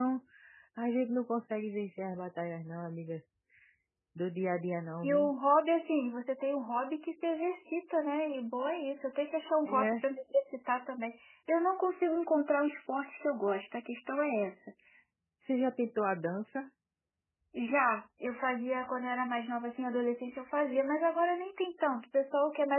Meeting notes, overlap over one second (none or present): none